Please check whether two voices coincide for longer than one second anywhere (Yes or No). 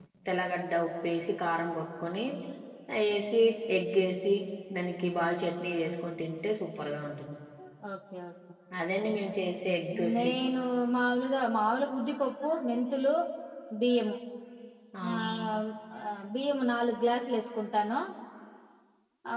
No